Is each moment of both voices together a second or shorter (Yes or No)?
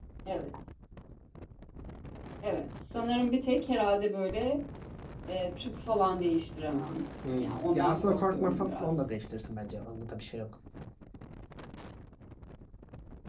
No